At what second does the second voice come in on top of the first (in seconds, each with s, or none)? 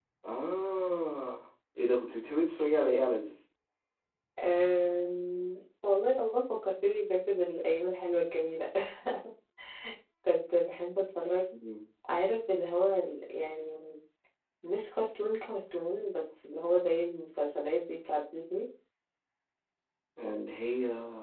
none